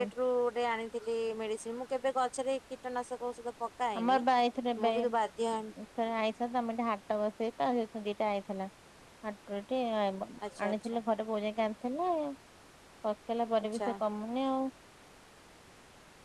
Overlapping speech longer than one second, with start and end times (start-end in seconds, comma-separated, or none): none